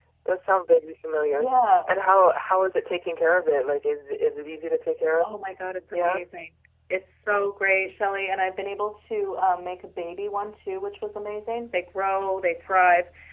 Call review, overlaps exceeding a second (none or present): none